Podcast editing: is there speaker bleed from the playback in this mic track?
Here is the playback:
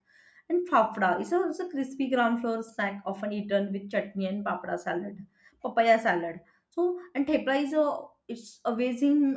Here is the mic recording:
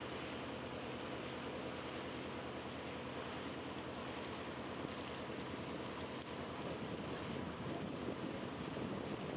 No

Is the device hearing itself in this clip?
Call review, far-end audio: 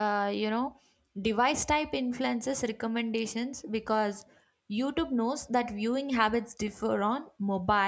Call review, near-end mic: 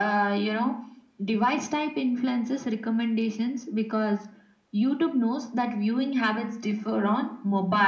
Yes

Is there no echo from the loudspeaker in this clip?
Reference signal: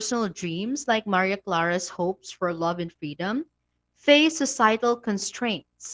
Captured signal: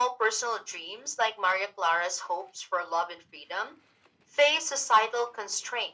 No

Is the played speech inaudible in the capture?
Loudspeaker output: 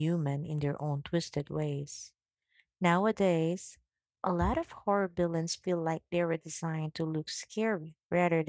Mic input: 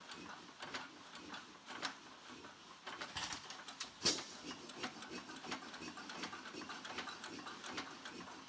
Yes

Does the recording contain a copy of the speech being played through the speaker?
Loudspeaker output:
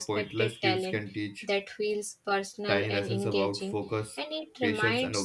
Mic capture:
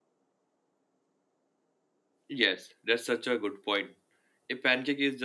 No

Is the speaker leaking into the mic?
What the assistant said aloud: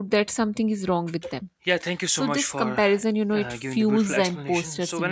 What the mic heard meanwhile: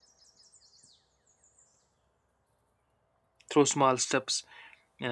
No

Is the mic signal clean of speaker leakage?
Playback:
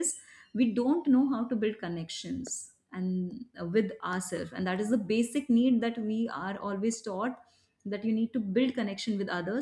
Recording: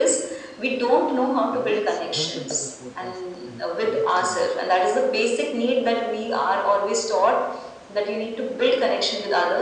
No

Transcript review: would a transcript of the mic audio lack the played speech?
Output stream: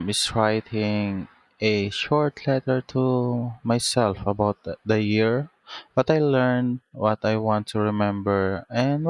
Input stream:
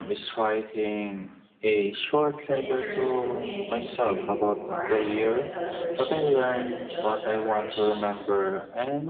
No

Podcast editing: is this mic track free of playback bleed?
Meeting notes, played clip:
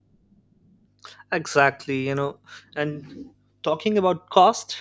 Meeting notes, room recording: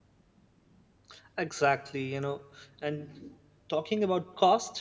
No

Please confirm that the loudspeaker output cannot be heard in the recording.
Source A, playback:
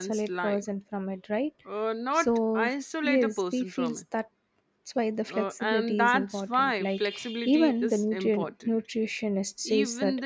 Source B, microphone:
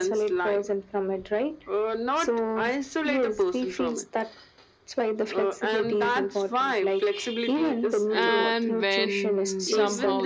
No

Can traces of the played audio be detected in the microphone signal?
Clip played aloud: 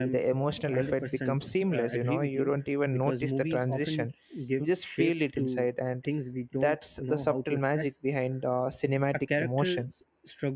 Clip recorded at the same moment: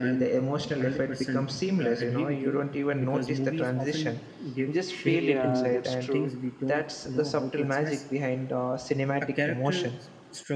Yes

